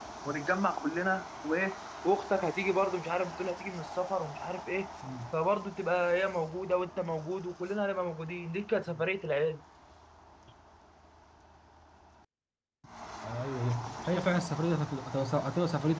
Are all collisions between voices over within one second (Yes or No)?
Yes